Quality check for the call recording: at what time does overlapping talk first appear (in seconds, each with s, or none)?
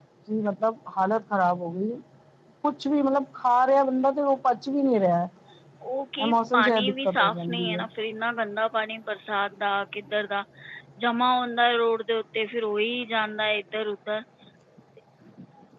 6.2 s